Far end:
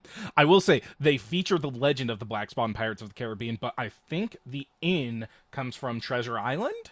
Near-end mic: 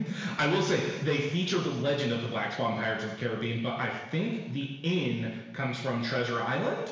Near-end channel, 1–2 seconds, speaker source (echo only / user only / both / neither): echo only